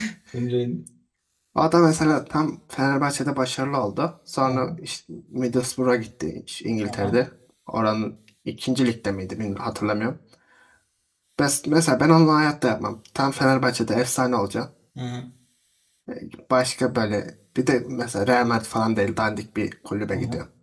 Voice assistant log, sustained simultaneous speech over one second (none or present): none